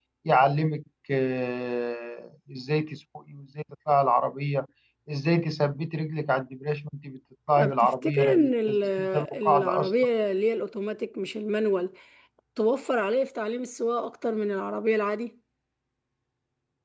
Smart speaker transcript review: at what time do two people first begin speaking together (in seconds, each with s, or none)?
7.6 s